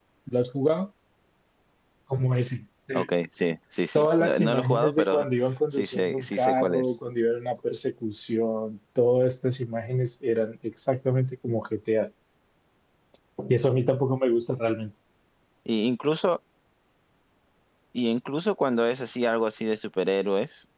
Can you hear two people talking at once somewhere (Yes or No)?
Yes